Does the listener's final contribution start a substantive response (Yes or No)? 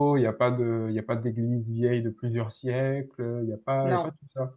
No